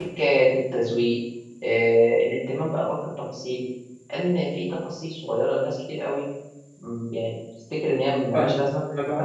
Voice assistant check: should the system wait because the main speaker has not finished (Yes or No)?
No